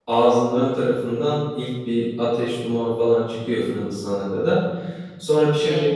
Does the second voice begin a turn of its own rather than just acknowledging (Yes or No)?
No